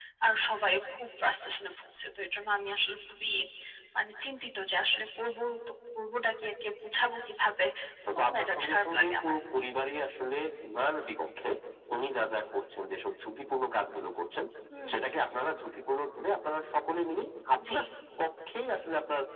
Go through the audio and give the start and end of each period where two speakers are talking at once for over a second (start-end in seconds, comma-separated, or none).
8.2-9.4